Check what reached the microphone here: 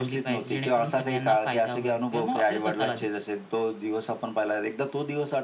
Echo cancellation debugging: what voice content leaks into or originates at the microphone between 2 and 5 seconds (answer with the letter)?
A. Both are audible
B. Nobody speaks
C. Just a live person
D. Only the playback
D